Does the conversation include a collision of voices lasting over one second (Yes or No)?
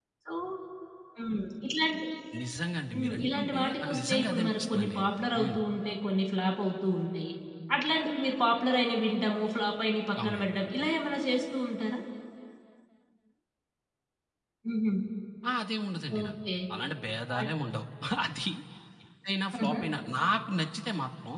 Yes